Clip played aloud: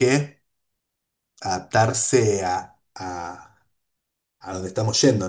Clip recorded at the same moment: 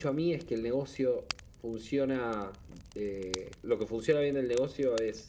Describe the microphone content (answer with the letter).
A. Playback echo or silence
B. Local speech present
B